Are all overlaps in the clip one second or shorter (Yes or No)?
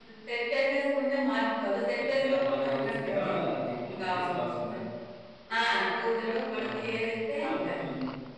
No